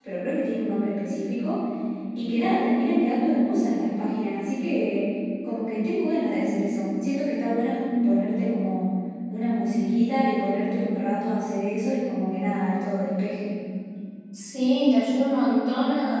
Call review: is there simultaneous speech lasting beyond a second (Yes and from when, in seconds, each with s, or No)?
No